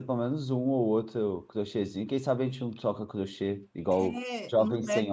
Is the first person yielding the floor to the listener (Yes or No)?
Yes